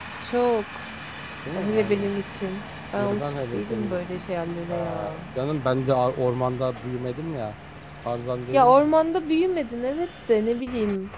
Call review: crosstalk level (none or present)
present